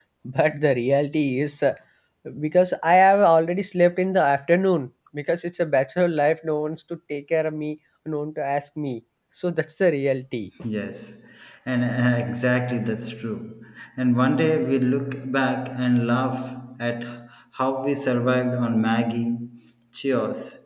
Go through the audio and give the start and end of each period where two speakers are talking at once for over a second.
none

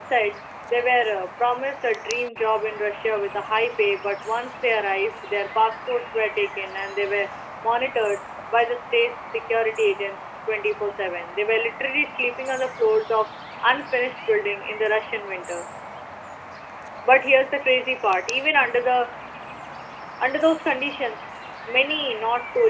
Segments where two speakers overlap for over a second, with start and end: none

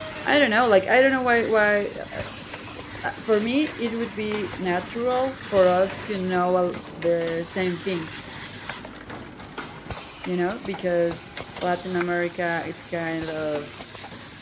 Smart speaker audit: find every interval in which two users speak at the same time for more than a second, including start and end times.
none

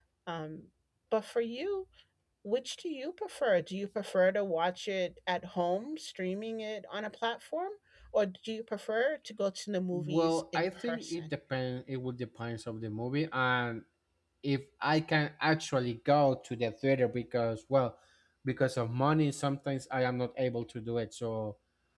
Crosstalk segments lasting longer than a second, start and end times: 9.9-11.3

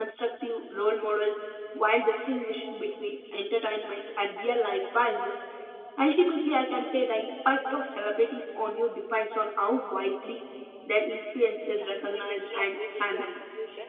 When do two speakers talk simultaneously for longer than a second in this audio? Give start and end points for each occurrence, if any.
11.8-13.4

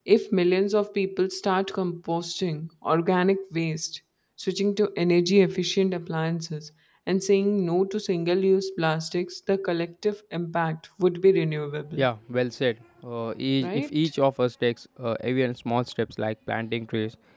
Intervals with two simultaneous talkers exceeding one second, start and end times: none

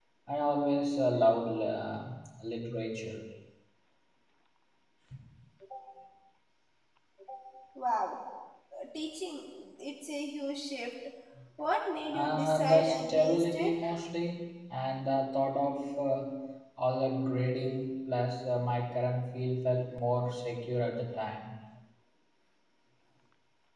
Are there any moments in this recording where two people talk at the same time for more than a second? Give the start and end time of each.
12.1-13.7

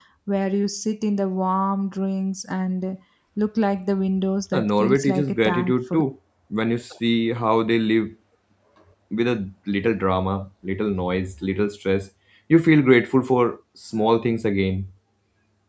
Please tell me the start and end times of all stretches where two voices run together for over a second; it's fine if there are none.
4.5-6.0

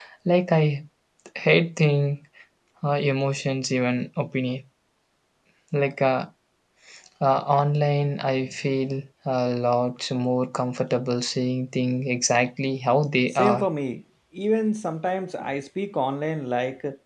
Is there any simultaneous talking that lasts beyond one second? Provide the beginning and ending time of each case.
none

